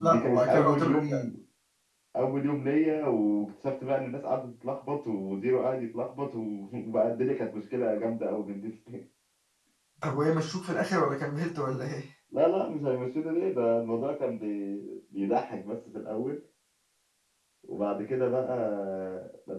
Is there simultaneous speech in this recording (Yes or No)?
Yes